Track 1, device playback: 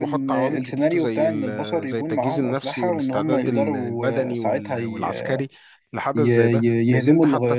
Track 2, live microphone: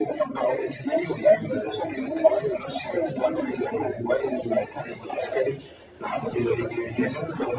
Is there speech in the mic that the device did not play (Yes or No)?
No